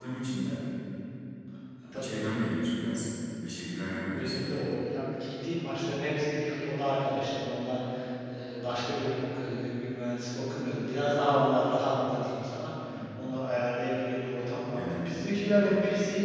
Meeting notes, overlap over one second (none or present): none